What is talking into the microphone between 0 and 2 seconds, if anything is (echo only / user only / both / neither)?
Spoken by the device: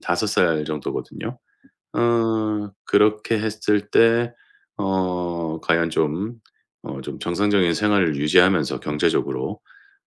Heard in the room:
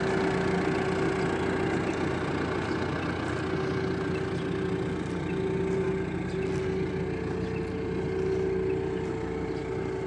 neither